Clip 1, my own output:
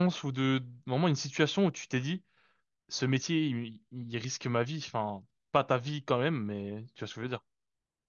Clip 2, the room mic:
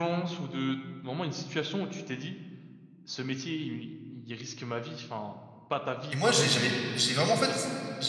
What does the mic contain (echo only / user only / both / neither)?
both